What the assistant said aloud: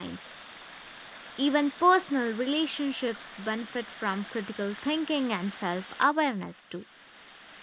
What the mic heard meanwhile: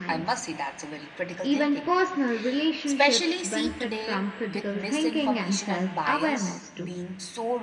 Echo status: present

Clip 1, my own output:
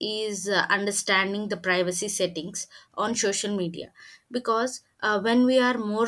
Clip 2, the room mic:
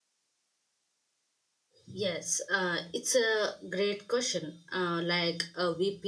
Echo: none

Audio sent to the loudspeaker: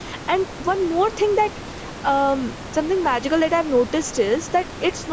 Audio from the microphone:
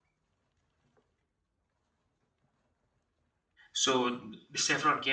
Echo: none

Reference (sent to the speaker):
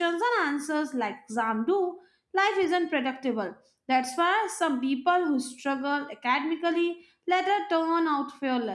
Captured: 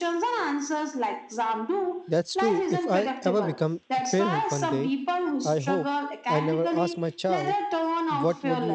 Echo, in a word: present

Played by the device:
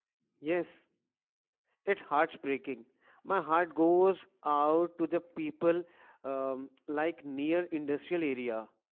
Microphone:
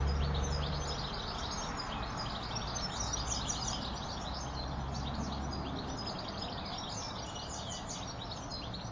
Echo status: none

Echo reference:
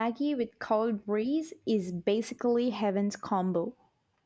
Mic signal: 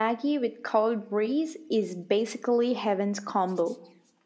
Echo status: present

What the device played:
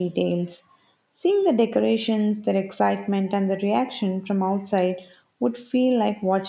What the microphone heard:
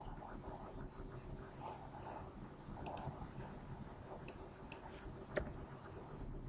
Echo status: none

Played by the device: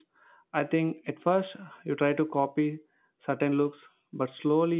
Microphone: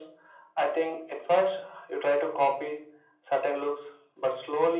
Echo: present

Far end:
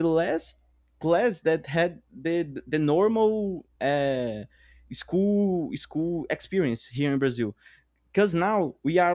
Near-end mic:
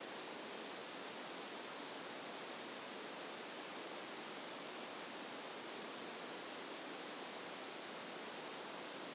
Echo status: none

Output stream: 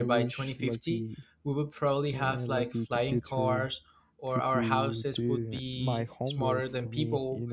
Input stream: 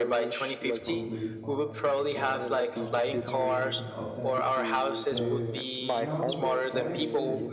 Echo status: present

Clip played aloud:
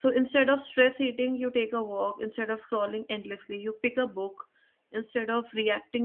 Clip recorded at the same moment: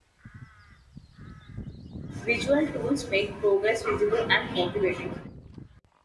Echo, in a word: none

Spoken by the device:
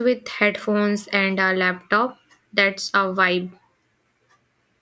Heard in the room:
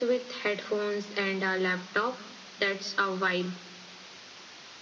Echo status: present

